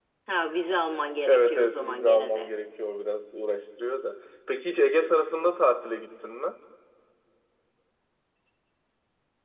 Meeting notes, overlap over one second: present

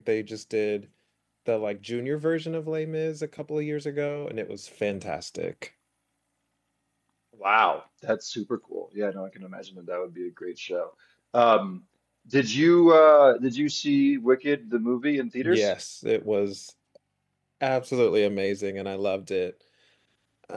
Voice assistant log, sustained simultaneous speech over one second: none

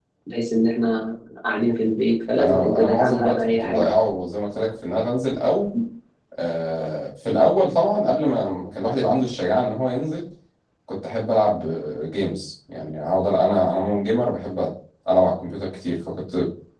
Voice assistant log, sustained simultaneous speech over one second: present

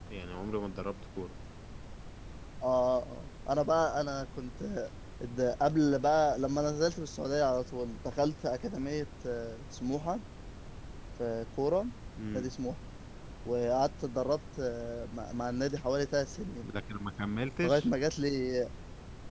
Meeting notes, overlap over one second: none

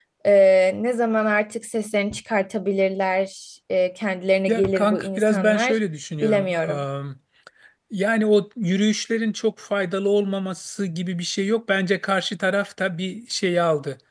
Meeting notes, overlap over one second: present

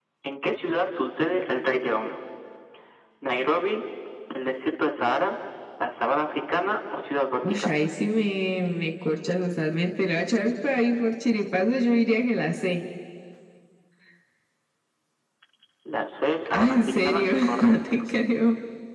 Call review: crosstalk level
present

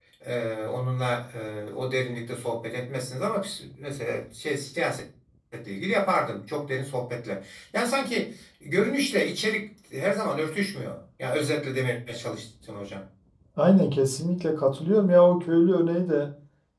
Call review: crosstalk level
none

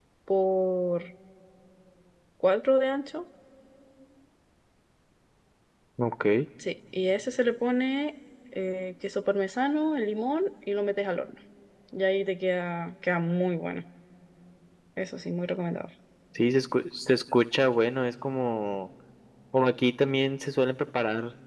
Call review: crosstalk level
none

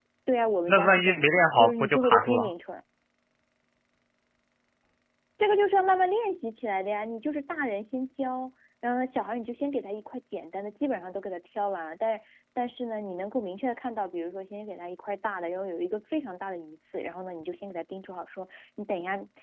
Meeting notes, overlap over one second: present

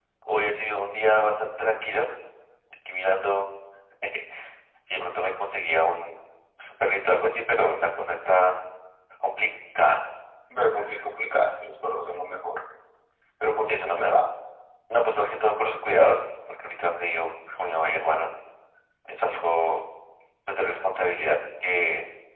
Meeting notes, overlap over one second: none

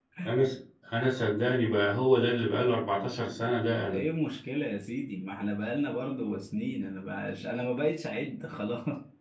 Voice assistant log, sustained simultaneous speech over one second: none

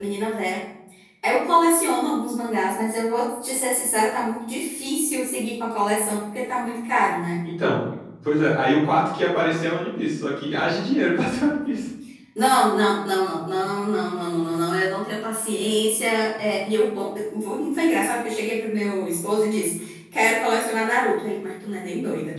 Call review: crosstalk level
none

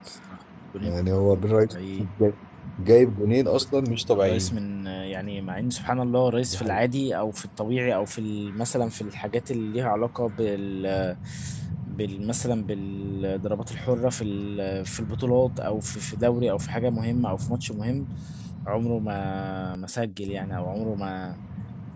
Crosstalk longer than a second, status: present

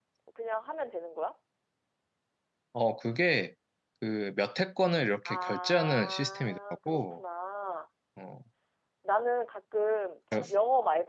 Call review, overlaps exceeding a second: present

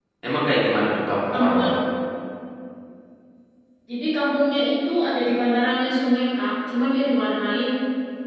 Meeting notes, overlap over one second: none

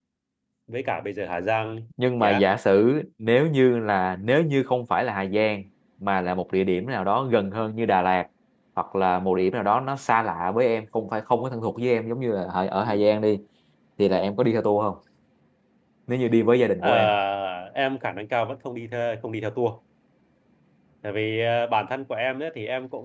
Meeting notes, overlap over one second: none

